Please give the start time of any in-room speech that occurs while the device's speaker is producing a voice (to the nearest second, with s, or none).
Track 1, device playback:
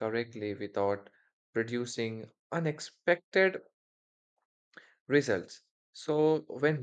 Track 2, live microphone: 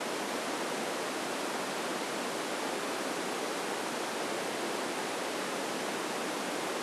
none